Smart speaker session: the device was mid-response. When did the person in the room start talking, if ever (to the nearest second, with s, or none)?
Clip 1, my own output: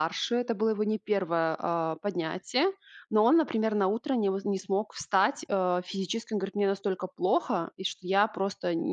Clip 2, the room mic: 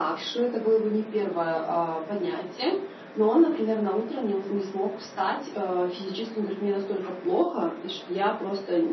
none